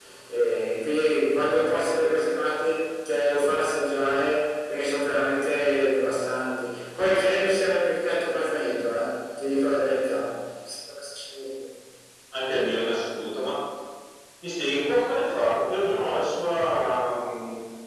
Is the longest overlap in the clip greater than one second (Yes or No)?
No